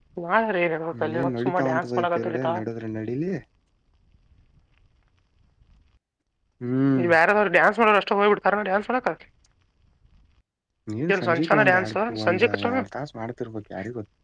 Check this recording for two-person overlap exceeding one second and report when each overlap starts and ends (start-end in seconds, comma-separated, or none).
1.0-2.5, 11.1-12.8